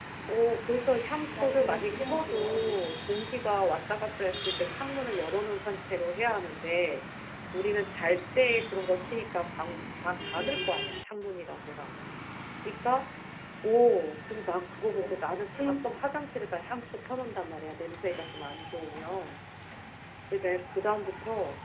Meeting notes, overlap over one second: present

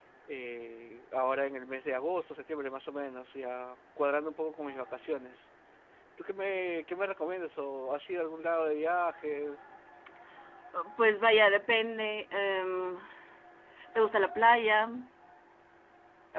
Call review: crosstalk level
none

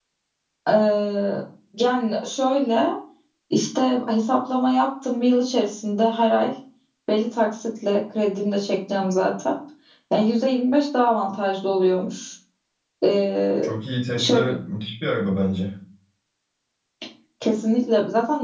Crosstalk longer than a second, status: none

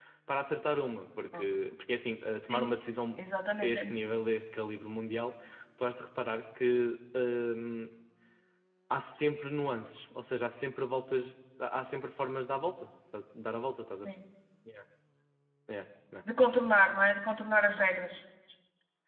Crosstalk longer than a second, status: none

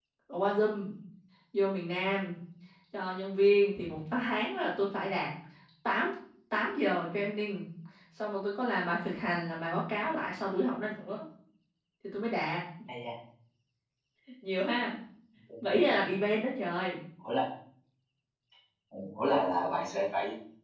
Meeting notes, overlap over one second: none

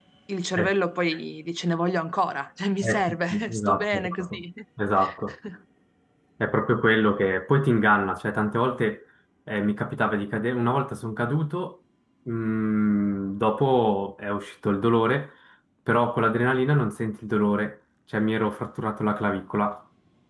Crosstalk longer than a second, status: present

